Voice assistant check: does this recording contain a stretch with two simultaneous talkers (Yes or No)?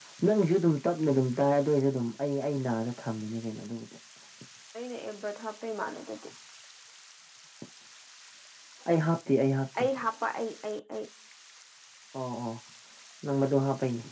No